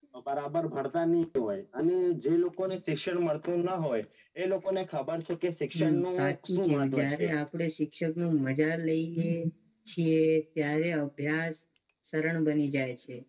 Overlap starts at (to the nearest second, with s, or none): 6 s